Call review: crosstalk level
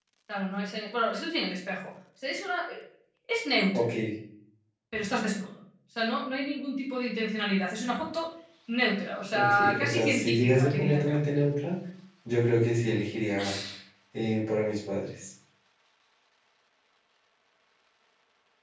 present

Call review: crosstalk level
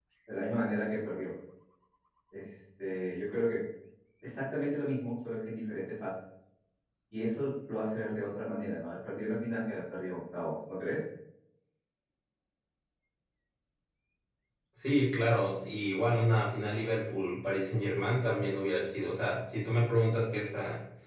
none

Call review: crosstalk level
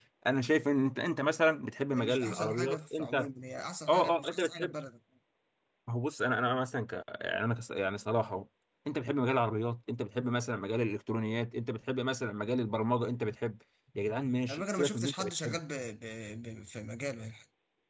present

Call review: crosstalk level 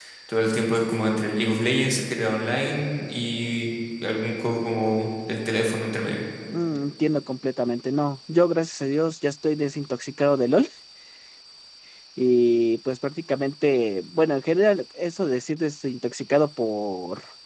none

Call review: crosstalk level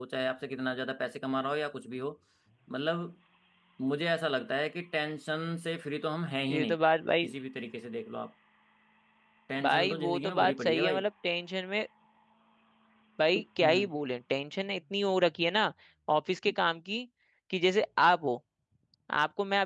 present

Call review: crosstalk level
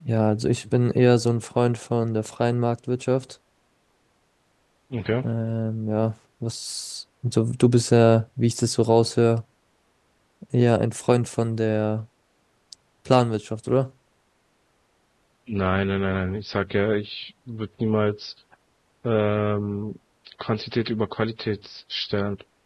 none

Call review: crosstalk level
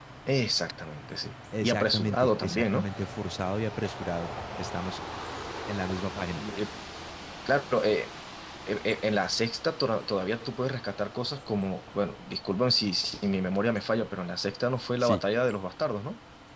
present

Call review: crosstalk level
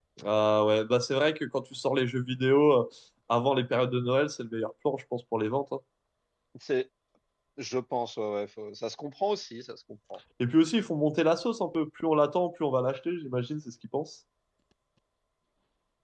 none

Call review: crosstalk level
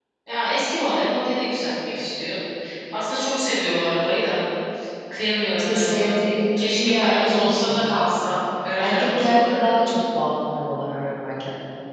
present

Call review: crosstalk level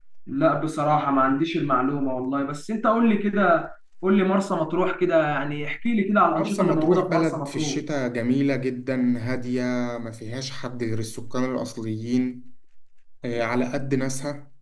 present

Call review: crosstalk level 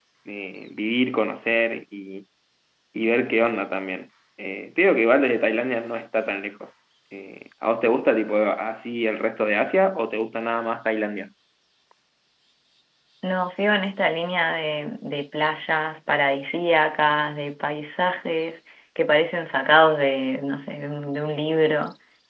none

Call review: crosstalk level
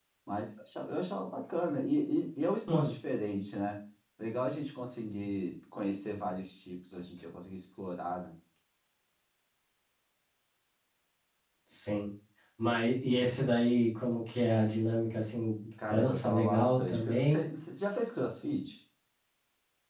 present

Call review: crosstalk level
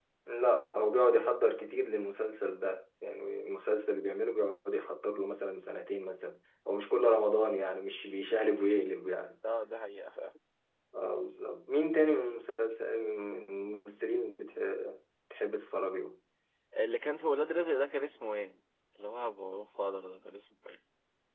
none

